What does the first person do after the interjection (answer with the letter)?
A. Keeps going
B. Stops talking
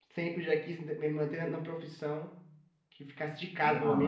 A